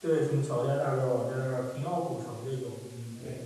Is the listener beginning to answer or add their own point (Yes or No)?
Yes